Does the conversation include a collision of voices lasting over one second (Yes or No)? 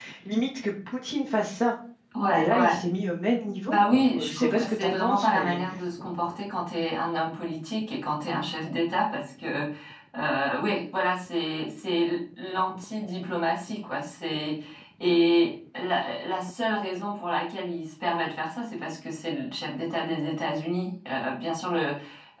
Yes